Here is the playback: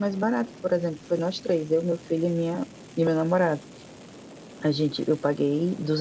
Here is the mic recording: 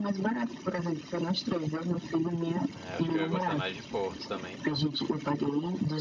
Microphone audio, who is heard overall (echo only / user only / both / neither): both